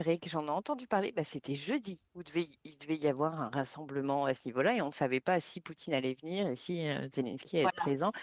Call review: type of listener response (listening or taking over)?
listening